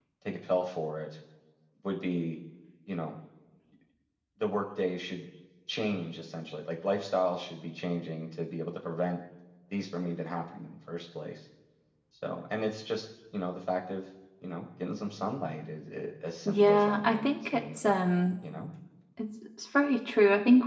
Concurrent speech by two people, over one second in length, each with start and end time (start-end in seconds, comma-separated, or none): 16.4-18.0